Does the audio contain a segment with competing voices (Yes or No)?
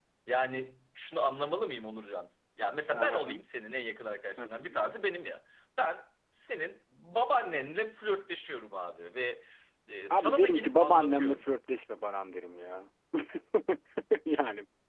Yes